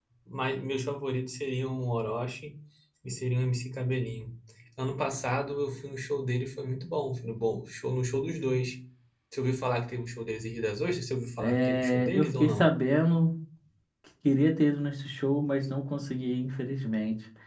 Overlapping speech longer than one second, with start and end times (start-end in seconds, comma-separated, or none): 11.4-12.7